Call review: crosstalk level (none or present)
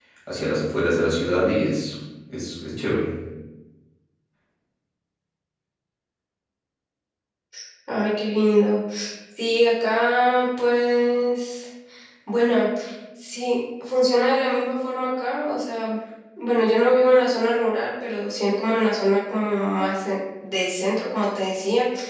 none